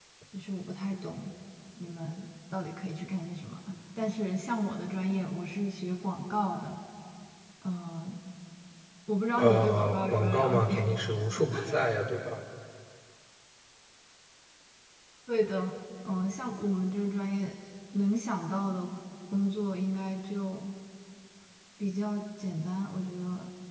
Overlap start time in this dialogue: 9.4 s

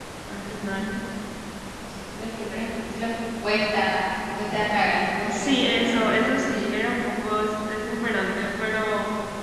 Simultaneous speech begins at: 5.3 s

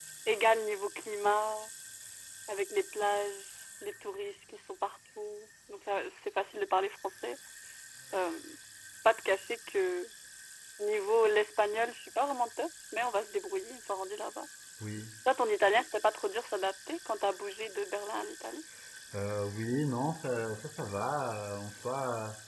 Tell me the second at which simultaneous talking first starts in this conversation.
none

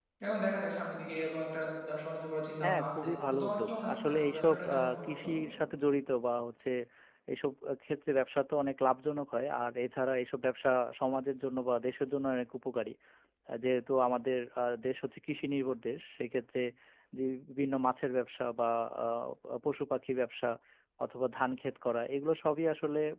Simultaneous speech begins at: 2.6 s

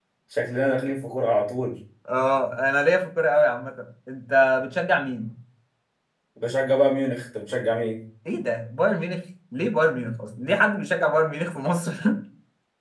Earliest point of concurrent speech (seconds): none

